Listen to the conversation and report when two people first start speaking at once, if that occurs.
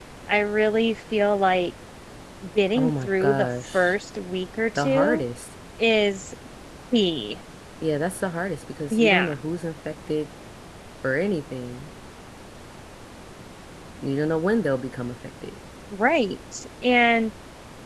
2.8 s

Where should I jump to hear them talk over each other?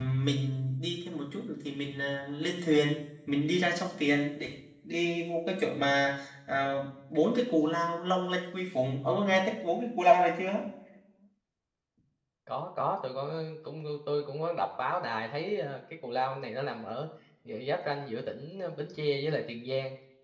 none

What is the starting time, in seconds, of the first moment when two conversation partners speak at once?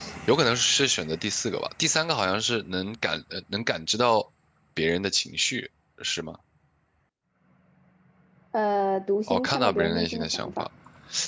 9.3 s

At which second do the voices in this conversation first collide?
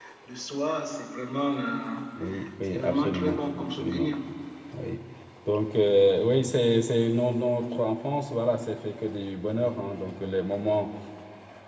2.7 s

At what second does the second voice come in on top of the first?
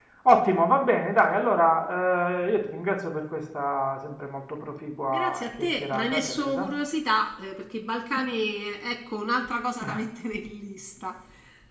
4.9 s

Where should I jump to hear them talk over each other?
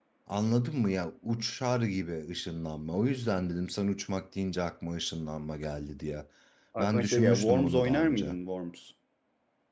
6.8 s

